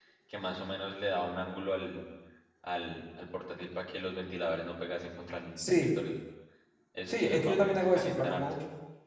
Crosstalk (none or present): present